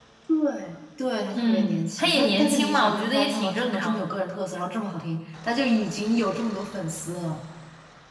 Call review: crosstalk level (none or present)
present